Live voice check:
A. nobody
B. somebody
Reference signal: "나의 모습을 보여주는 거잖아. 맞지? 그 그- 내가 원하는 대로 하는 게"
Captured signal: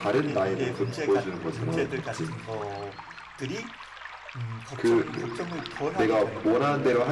B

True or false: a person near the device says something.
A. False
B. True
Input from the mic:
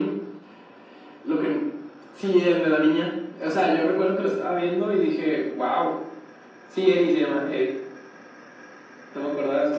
A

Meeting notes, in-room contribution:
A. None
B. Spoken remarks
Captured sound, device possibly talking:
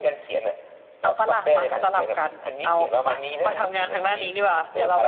B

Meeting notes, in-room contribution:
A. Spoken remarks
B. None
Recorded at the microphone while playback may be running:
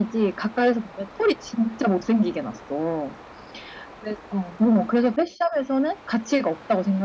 A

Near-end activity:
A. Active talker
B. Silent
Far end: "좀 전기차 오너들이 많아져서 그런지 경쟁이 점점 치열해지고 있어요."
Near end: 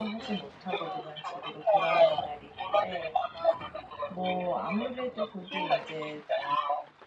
A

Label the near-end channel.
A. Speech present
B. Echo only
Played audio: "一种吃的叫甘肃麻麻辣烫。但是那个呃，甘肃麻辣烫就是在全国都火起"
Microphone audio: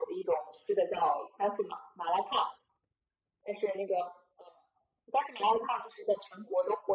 B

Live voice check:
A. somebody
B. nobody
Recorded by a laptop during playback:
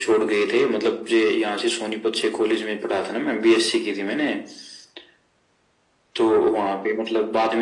B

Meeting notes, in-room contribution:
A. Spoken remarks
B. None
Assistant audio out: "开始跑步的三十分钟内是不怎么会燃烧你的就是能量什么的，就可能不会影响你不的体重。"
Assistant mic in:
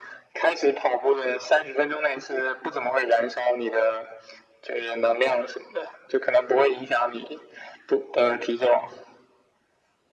B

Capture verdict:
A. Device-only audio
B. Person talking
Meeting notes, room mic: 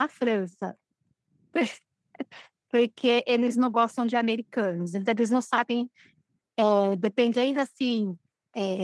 B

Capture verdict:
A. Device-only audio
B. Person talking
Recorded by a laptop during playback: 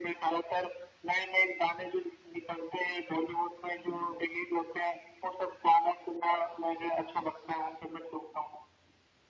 A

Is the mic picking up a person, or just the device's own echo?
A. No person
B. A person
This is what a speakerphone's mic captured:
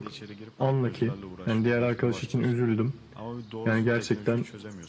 B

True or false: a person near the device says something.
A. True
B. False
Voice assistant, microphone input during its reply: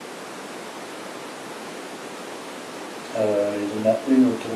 A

